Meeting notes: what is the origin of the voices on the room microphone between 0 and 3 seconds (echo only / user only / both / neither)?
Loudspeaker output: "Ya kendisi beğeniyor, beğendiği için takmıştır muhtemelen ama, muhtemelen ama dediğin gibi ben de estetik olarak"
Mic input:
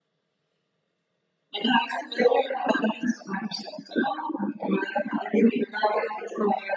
echo only